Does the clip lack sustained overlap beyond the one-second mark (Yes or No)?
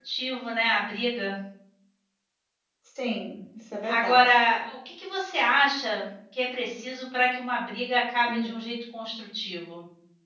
Yes